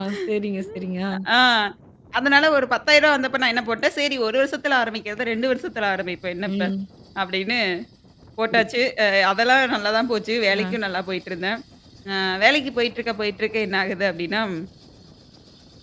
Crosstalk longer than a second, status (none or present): none